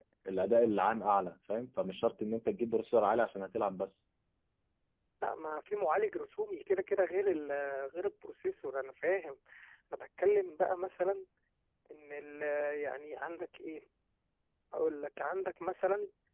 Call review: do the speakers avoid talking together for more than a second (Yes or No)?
Yes